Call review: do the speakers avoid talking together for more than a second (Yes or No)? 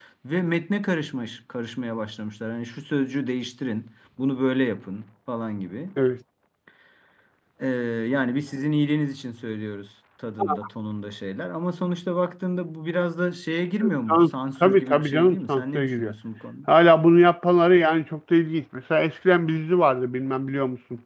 No